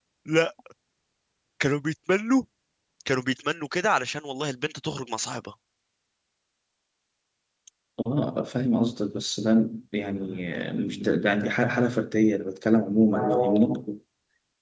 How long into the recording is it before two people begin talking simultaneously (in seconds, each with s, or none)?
none